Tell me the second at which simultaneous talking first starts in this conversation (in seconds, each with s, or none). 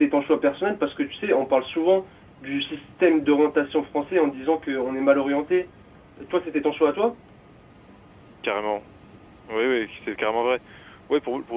none